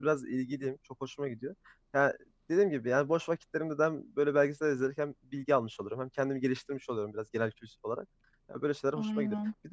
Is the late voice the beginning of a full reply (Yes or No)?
No